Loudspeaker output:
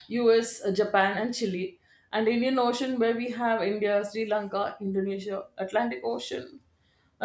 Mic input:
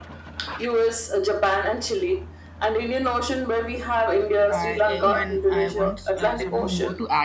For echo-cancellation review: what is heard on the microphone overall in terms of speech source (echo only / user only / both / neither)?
both